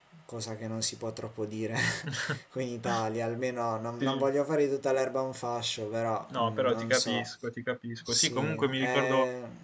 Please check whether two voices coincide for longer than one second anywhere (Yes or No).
Yes